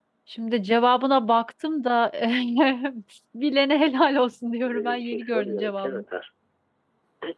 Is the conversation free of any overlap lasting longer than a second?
No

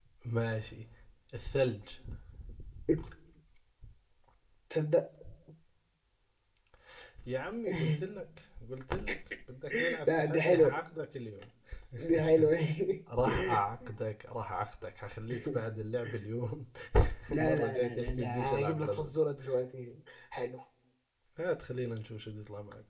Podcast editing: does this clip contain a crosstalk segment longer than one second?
Yes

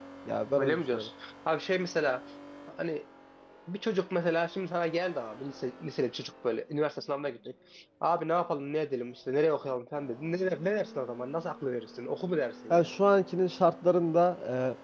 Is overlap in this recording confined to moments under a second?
Yes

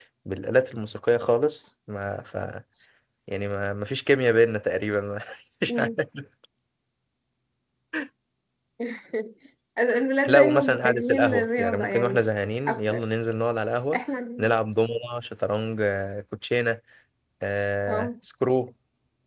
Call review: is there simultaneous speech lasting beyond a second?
Yes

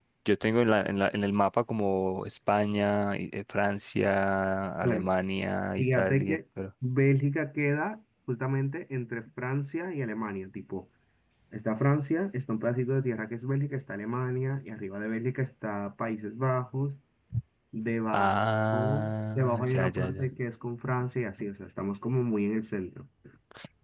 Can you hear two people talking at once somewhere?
Yes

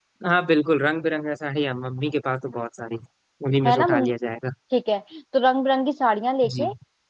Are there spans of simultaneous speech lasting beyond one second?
No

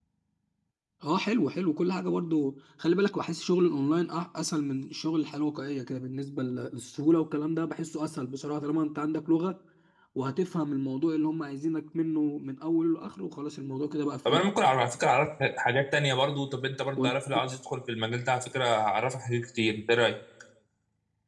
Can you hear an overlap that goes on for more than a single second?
No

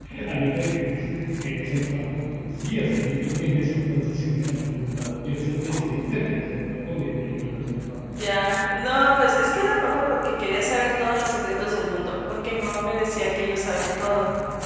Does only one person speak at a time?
Yes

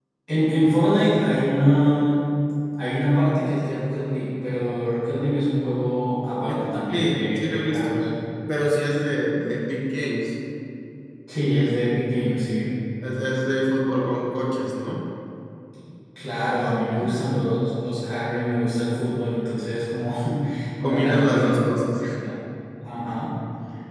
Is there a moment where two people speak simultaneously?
Yes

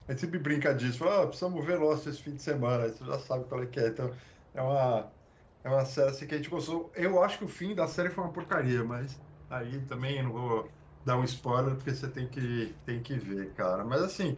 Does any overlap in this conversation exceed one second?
No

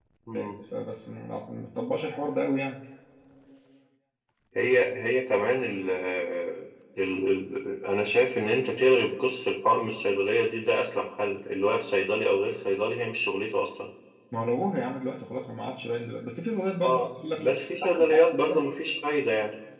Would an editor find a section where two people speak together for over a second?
Yes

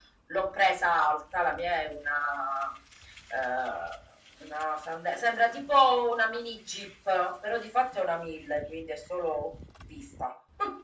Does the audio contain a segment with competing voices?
No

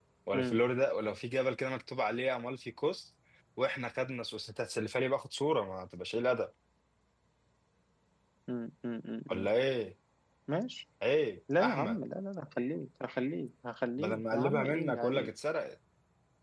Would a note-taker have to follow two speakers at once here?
Yes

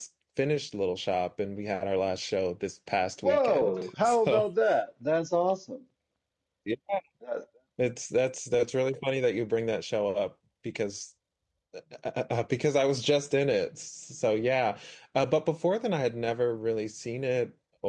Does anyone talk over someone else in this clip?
Yes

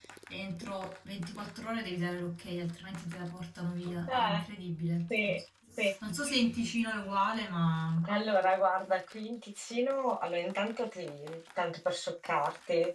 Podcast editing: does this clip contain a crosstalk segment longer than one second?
No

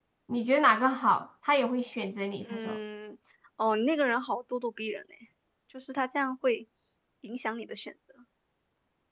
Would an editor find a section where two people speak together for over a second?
No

